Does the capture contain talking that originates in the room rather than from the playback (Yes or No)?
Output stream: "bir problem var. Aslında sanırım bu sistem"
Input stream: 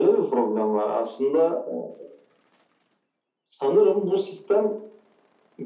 No